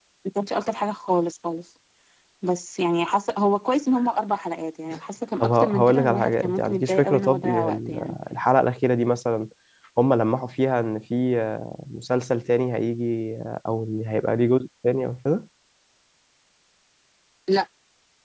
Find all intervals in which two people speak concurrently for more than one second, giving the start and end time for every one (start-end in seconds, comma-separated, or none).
5.4-8.2